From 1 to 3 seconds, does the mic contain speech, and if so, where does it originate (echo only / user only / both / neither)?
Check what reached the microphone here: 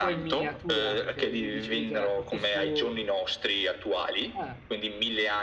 both